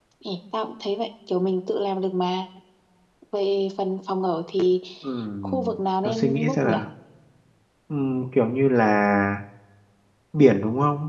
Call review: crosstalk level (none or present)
present